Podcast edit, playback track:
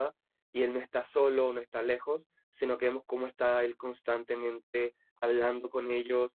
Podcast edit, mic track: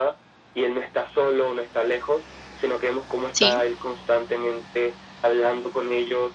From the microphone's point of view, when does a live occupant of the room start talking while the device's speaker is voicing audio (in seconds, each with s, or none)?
3.3 s